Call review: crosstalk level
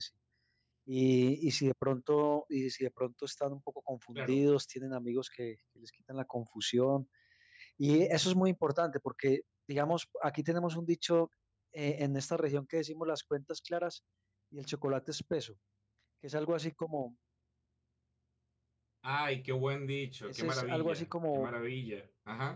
present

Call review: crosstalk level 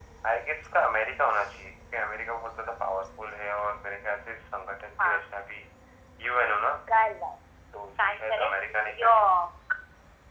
present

